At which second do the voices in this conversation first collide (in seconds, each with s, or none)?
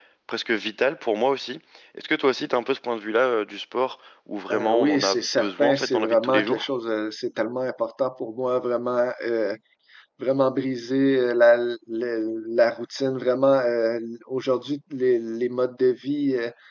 4.5 s